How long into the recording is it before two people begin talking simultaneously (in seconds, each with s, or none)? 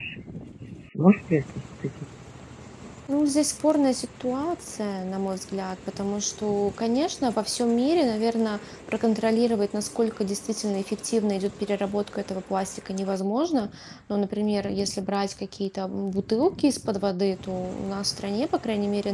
none